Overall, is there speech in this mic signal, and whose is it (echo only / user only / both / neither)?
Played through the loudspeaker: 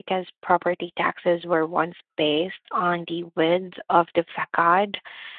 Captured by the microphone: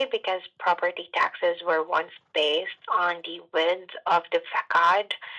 echo only